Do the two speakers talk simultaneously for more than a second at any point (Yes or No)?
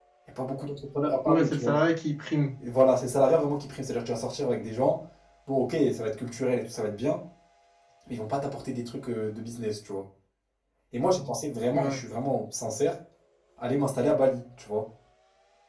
No